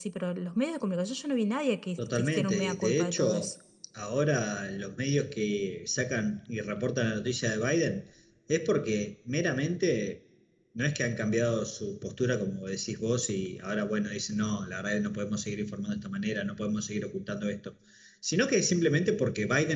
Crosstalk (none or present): present